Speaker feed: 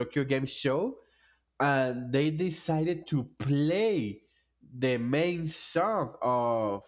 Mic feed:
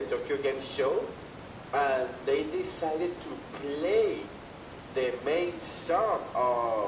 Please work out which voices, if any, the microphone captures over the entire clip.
echo only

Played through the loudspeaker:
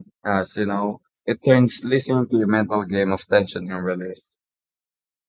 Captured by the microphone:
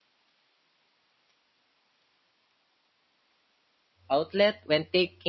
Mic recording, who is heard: user only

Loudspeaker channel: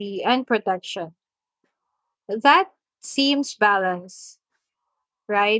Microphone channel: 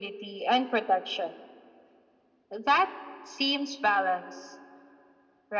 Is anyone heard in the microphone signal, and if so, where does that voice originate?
echo only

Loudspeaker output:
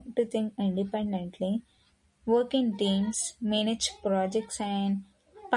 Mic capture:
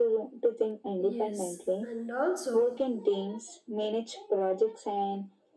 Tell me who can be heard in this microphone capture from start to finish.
both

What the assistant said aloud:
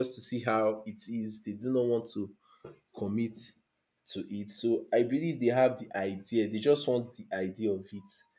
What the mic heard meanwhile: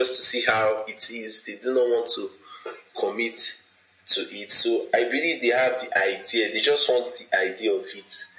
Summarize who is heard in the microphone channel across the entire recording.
echo only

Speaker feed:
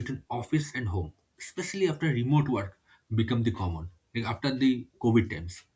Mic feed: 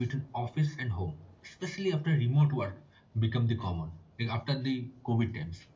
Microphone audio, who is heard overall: echo only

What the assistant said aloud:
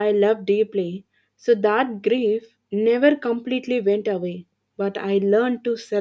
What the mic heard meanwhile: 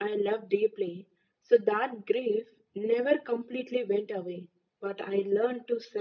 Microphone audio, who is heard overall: echo only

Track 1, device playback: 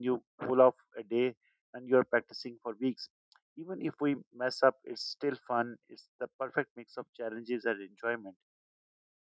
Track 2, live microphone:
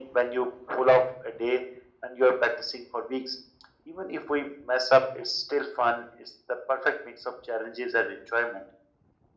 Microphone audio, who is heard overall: echo only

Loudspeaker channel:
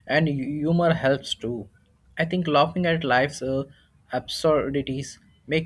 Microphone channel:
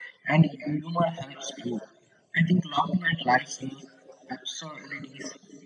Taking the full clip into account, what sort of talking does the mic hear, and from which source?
echo only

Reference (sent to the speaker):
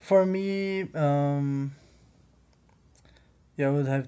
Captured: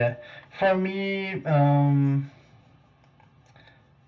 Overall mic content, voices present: echo only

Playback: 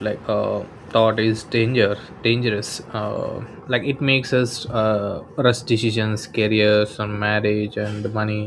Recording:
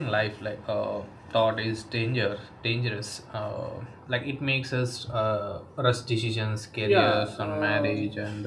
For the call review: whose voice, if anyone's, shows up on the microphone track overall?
both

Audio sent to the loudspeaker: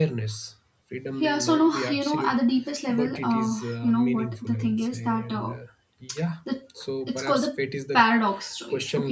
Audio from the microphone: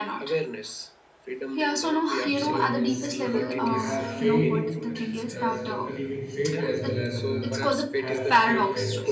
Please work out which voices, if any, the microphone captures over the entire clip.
both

